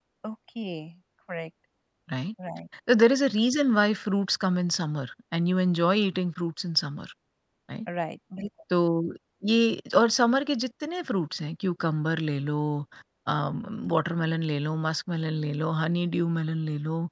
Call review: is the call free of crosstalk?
Yes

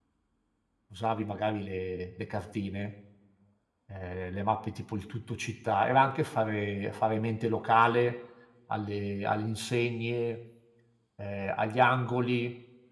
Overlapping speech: No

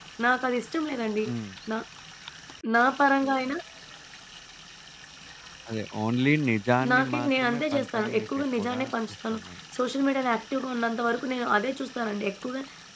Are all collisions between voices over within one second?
No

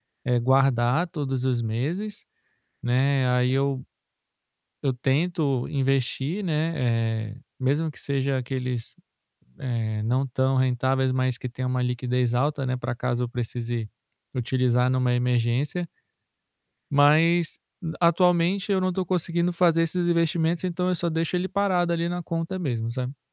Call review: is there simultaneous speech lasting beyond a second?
No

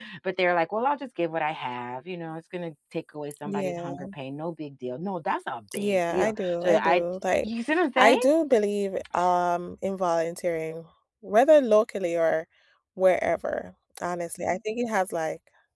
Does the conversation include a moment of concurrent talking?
Yes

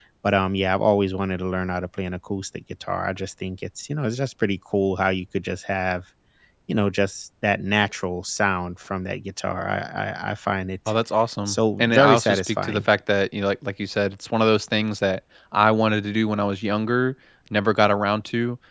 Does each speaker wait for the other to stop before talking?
No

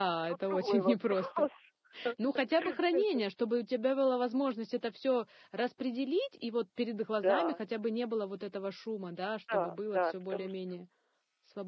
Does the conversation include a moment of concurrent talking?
Yes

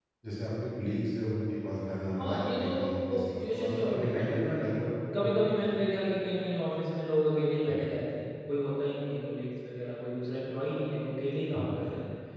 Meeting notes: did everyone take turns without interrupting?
No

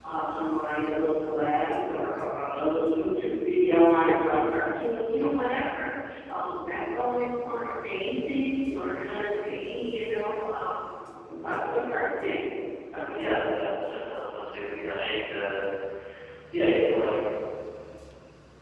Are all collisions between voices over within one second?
Yes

